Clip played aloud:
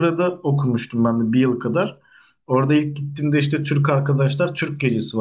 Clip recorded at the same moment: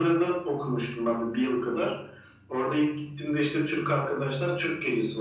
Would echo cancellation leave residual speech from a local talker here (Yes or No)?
No